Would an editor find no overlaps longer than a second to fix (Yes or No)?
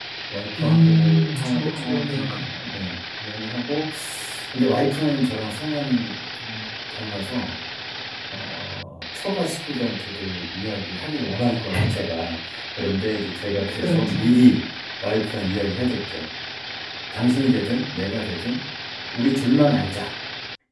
No